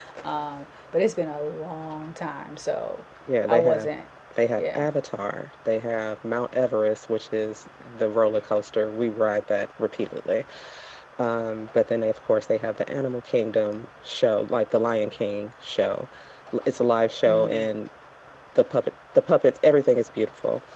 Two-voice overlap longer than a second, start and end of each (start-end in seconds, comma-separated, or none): none